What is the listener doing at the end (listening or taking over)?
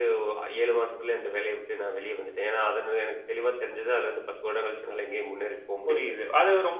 taking over